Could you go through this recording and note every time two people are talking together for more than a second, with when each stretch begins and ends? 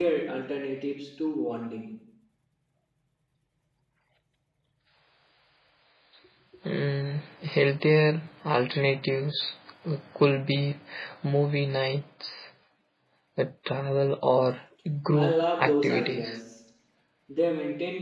15.1-16.4

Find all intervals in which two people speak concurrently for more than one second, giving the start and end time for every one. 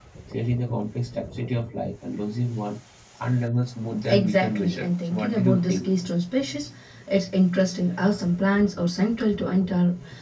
4.1-5.9

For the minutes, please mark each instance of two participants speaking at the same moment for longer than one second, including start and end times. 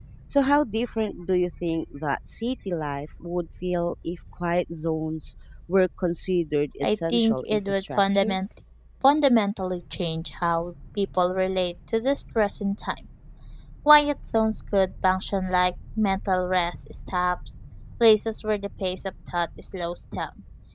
6.8-8.4

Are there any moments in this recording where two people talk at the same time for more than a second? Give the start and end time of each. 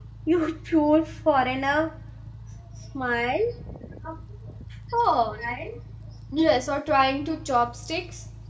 none

